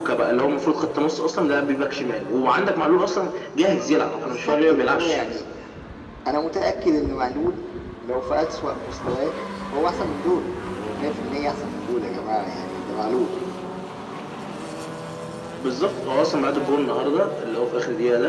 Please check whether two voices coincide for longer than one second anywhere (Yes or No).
Yes